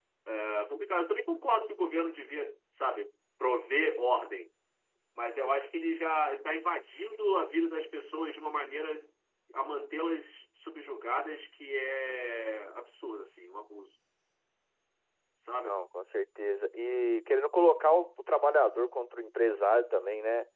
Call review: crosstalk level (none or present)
none